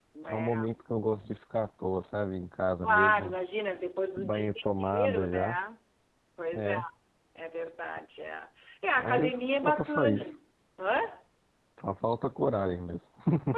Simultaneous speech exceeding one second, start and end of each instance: 4.2-5.6, 9.0-10.3

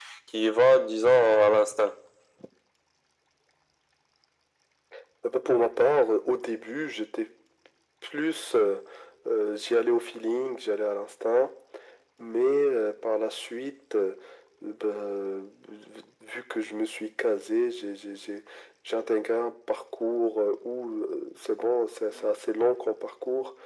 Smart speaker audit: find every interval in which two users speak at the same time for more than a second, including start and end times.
none

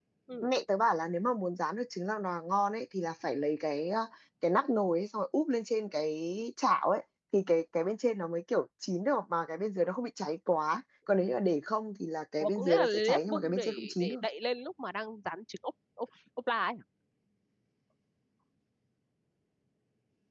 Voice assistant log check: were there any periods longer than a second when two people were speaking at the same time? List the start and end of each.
12.4-14.2

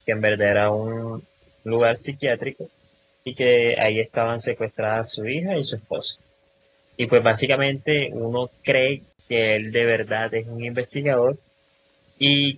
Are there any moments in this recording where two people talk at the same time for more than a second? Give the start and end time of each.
none

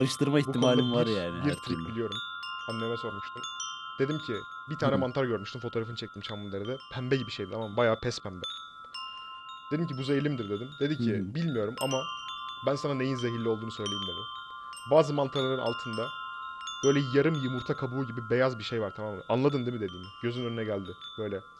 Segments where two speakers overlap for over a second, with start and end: 0.5-1.9

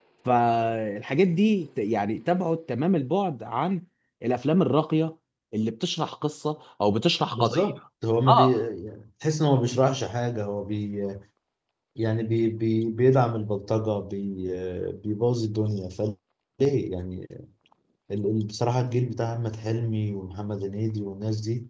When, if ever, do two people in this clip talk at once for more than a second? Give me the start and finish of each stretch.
none

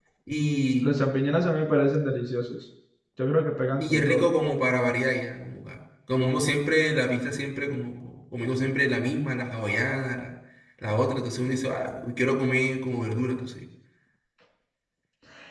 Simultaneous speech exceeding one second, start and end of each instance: none

